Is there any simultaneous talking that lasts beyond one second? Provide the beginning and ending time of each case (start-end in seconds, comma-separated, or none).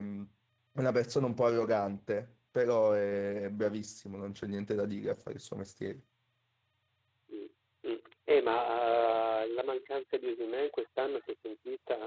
none